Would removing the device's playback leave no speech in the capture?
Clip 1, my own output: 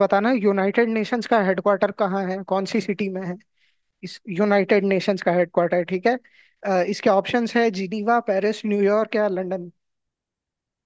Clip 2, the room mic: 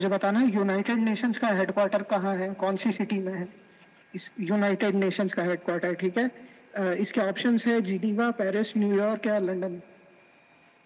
Yes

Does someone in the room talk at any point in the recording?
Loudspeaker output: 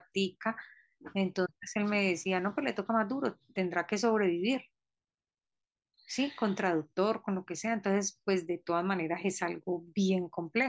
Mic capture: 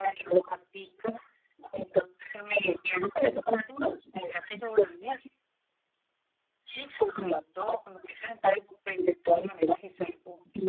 No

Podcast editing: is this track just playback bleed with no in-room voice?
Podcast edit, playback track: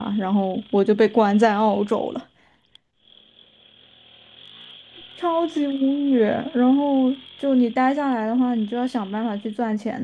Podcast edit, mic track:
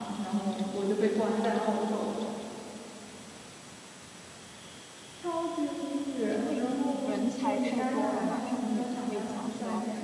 No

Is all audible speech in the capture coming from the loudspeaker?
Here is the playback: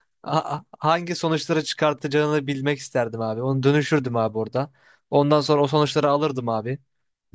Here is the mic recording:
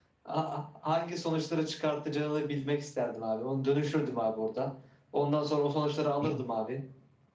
No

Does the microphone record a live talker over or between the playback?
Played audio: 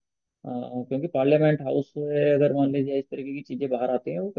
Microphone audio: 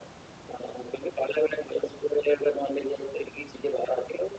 No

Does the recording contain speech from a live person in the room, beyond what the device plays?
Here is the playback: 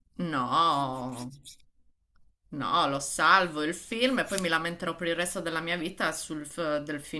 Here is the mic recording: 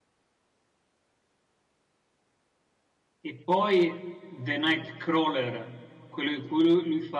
Yes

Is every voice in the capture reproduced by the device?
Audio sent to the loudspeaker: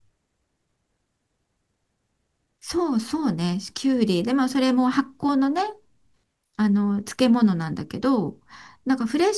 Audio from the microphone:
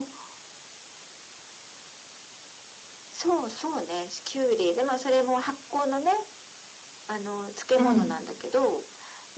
No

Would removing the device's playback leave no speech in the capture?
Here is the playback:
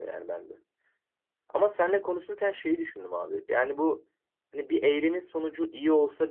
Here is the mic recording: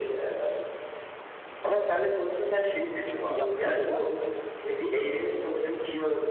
No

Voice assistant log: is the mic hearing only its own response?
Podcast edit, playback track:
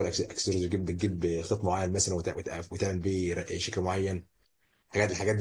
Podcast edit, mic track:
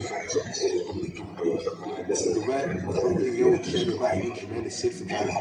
No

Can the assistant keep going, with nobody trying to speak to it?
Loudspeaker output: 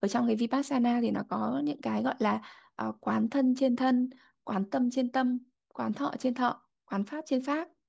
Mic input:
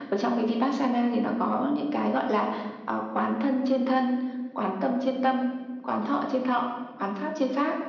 Yes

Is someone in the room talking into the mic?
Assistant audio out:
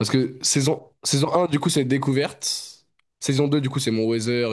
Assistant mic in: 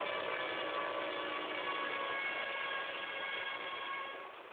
No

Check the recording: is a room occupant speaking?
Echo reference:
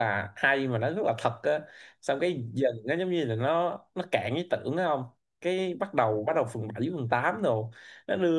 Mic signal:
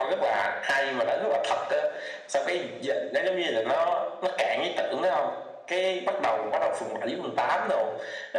No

